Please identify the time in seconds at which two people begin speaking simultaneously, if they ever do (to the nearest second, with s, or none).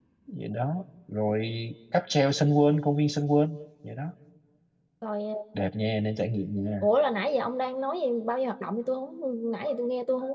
none